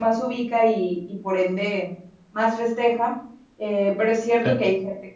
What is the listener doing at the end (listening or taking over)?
listening